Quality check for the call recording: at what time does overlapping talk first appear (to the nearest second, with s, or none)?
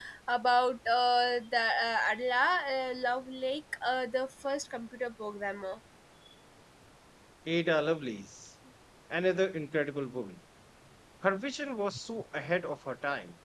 none